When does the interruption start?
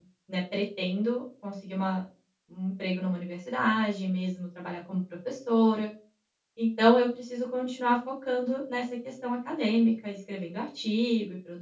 none

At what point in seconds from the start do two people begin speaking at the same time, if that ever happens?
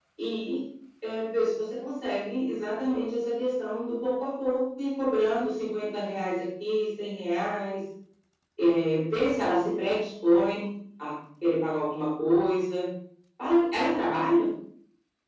none

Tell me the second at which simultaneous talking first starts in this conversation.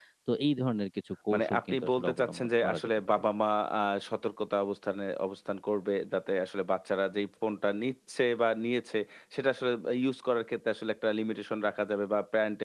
1.3 s

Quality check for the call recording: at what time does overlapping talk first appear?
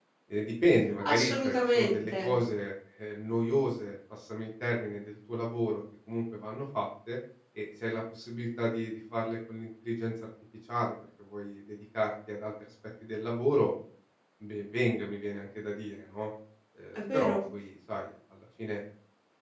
1.0 s

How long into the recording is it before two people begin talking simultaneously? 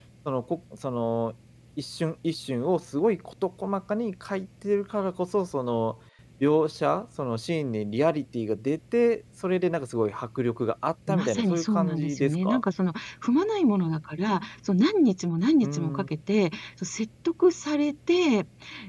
11.1 s

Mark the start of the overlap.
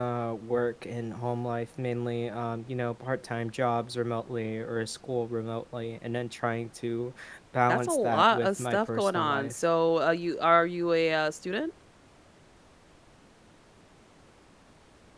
7.7 s

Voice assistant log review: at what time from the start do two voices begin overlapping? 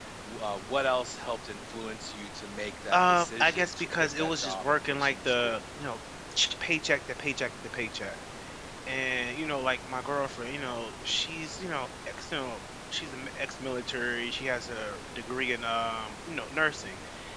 2.9 s

